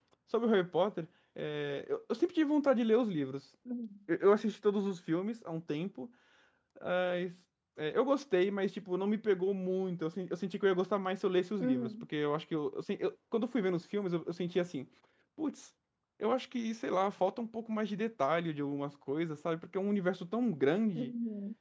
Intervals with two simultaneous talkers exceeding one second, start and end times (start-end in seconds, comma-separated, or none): none